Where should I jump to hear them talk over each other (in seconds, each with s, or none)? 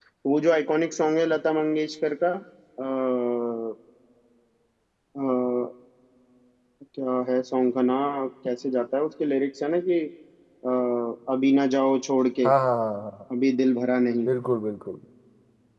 none